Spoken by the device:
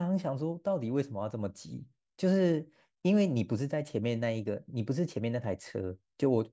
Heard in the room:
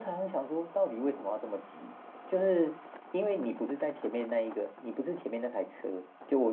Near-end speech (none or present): none